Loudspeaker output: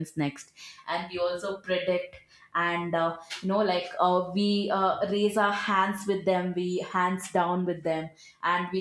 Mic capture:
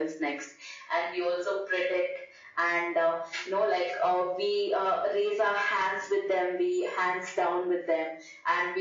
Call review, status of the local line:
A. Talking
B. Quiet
B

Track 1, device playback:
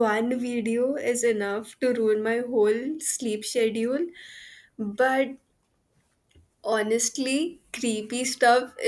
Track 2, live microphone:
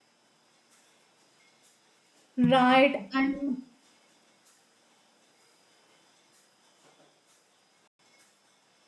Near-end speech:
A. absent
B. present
B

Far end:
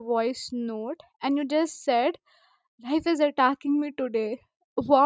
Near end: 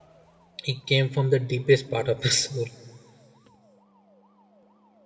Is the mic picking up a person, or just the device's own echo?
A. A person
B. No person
A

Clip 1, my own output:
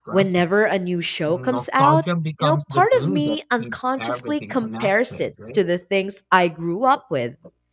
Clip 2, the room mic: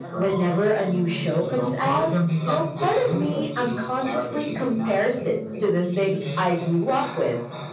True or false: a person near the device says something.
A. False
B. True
B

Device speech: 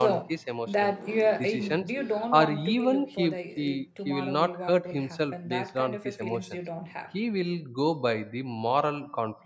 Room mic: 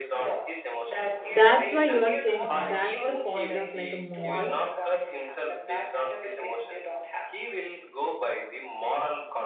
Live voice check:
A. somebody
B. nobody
A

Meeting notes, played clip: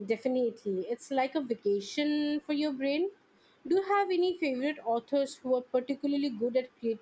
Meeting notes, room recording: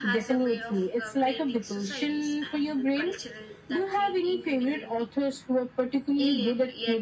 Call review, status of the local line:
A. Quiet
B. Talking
B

